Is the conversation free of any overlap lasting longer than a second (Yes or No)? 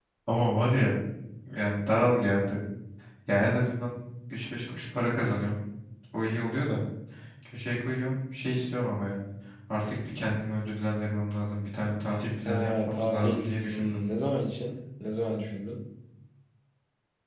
No